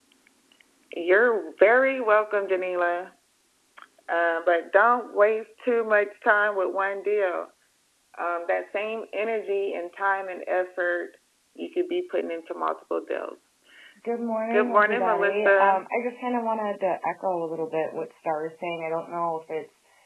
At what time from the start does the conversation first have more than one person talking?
14.5 s

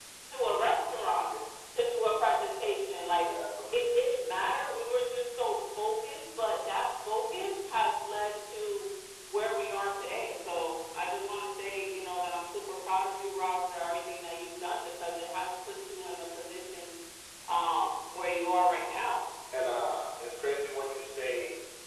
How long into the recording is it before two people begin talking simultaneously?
none

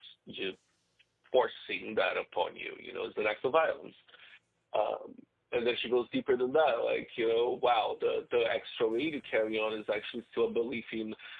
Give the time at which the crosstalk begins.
none

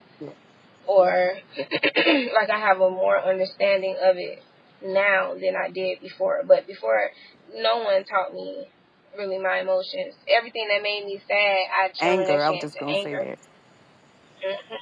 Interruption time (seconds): 12.0 s

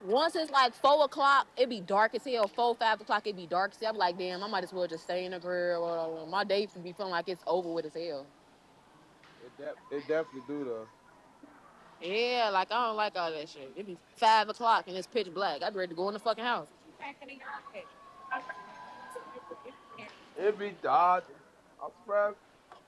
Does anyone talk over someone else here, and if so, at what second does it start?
none

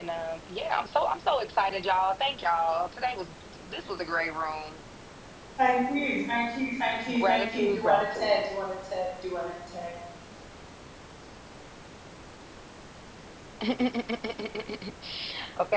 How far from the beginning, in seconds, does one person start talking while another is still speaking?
7.1 s

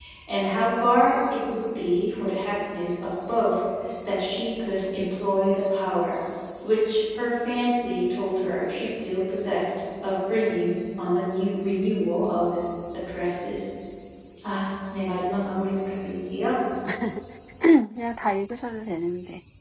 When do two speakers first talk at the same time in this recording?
none

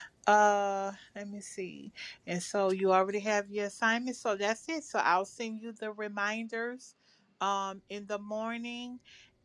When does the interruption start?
none

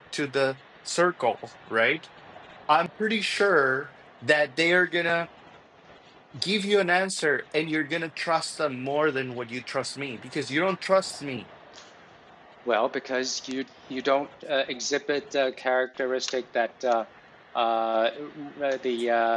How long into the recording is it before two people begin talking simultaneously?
none

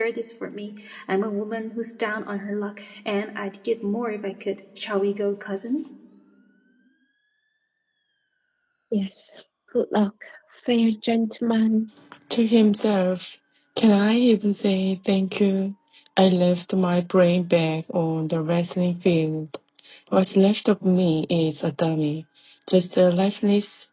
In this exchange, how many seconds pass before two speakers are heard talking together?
none

